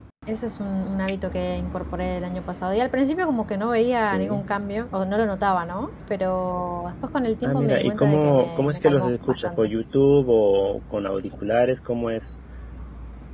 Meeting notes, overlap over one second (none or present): present